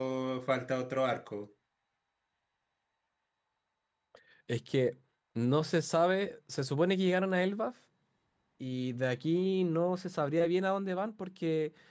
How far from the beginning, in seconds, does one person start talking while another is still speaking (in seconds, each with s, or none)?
none